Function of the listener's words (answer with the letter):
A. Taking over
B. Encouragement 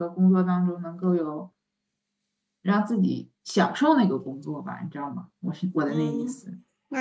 A